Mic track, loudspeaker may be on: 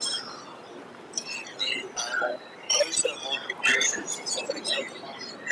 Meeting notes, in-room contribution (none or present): none